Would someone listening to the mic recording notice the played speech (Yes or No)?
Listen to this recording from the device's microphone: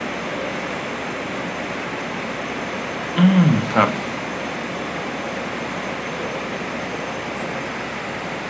No